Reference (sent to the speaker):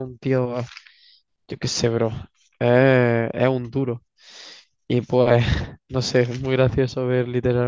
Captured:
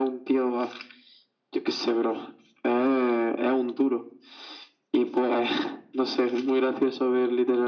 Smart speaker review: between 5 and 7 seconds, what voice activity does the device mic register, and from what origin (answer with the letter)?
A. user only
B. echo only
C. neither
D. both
B